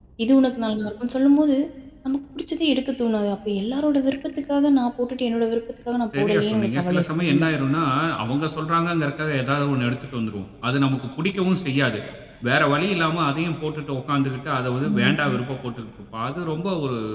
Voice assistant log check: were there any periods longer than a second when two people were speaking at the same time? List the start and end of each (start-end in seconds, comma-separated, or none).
6.2-7.4